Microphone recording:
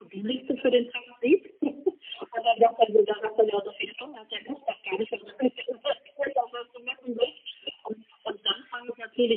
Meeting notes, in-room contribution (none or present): none